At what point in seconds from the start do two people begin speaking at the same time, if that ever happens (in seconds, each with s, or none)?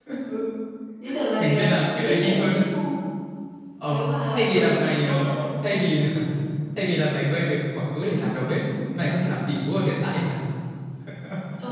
1.4 s